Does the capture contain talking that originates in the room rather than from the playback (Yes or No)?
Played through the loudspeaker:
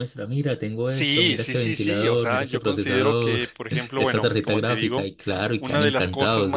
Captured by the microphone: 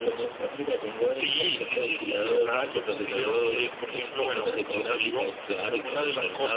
No